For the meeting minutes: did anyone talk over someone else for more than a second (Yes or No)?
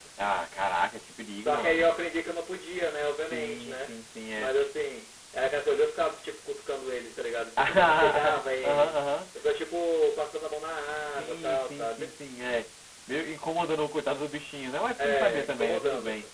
Yes